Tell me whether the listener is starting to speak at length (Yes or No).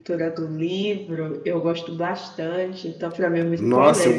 Yes